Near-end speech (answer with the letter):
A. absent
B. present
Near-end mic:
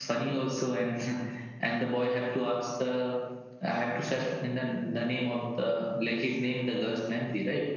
A